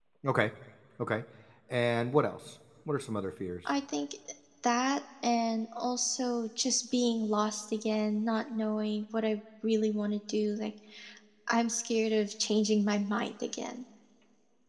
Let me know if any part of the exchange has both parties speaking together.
No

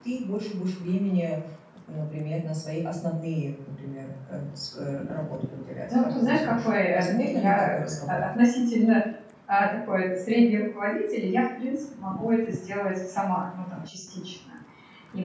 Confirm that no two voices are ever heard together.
No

